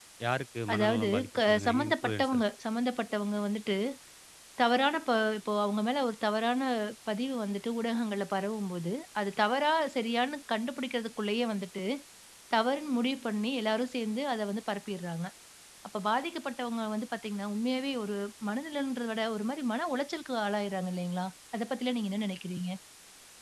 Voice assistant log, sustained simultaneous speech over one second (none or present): present